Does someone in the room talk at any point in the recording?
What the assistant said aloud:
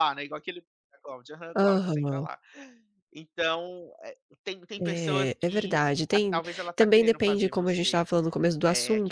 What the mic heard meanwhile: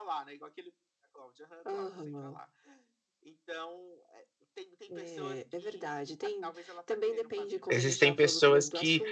Yes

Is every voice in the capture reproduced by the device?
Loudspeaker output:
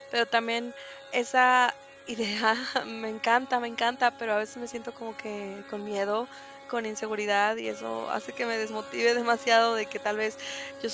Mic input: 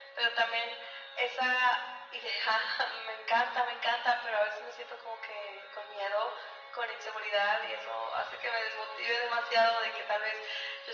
Yes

